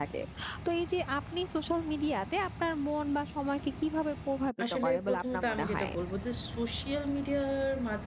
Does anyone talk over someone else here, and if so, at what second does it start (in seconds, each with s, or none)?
4.6 s